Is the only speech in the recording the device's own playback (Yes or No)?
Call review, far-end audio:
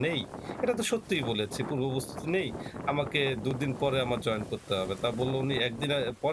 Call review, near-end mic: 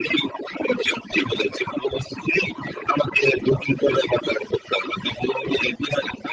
Yes